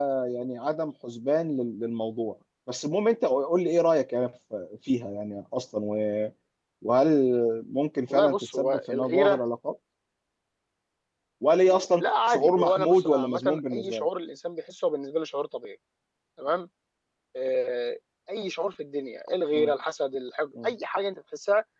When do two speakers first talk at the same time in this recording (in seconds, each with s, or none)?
8.0 s